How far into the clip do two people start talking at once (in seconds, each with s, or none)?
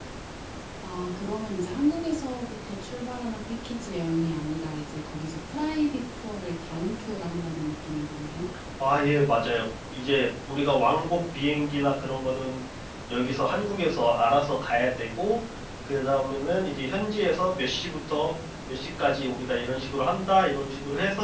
none